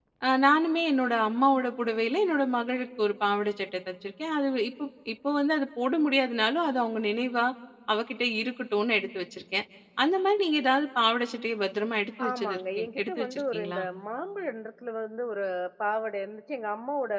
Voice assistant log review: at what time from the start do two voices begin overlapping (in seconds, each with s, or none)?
12.2 s